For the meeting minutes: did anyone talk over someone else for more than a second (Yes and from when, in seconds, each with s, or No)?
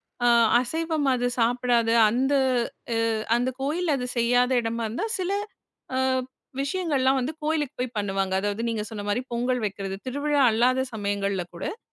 No